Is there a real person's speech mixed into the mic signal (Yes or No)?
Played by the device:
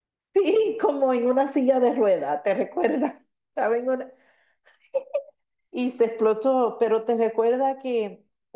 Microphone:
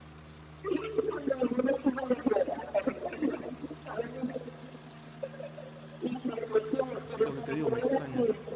Yes